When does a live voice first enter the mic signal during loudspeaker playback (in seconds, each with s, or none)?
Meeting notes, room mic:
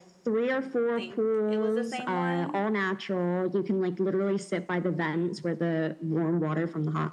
0.9 s